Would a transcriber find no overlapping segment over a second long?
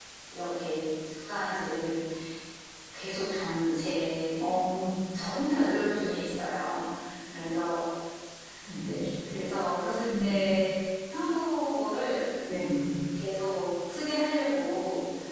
Yes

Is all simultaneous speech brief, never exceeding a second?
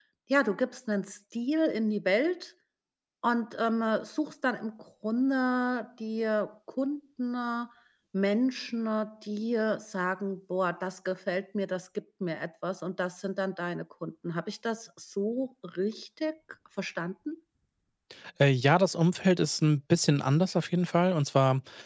Yes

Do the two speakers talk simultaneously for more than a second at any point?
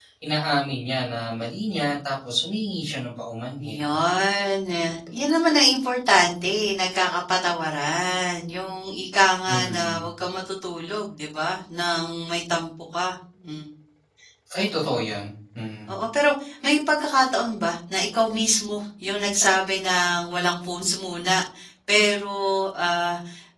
No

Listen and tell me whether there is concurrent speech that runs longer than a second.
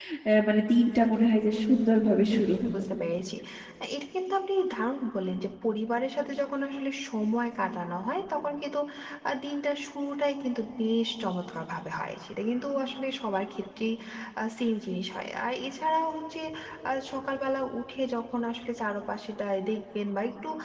No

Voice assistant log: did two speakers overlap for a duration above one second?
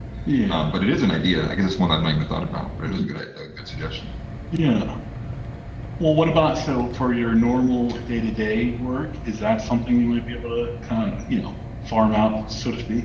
No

